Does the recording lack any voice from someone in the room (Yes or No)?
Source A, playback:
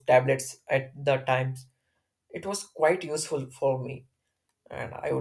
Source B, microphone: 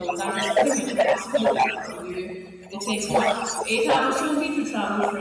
No